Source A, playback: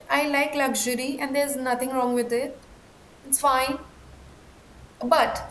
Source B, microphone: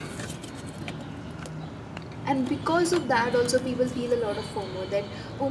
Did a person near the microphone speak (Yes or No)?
Yes